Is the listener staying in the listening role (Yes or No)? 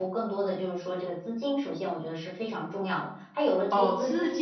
No